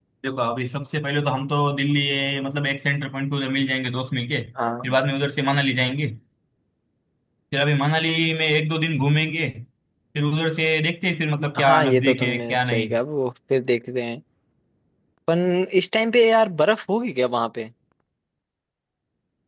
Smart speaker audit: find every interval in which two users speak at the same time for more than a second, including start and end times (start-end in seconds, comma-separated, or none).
11.6-12.9